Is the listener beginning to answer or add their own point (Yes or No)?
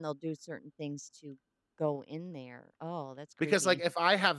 Yes